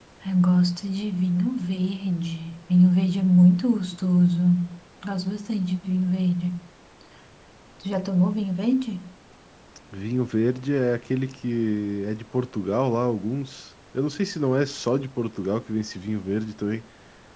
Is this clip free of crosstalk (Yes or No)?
Yes